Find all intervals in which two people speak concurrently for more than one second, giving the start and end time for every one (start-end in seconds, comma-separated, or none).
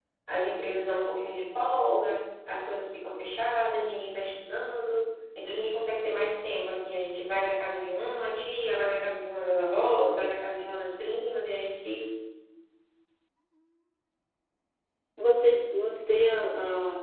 none